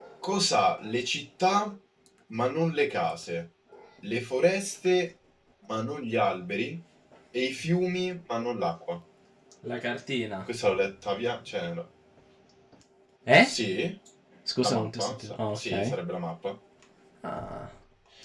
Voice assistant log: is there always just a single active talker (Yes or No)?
No